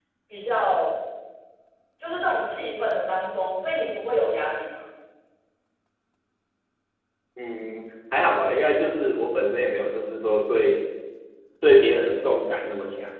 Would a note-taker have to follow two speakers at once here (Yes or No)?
No